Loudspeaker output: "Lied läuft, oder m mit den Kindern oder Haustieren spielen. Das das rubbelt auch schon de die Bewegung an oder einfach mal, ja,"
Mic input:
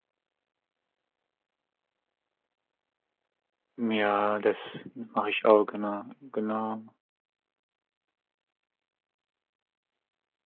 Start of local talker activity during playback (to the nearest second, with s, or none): 4 s